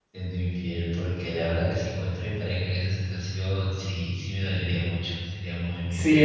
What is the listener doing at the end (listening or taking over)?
taking over